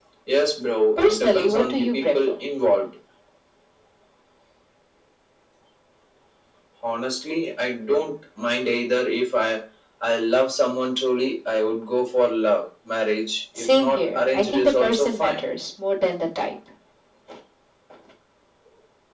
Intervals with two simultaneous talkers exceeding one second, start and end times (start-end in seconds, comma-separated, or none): 1.0-2.3, 13.6-15.4